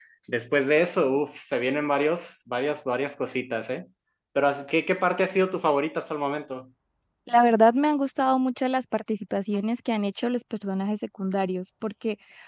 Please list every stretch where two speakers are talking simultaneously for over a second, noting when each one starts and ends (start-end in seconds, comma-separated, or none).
none